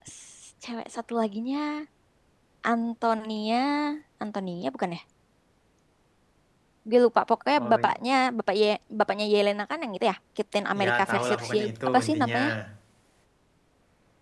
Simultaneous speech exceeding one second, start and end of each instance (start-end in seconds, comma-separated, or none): 10.8-12.4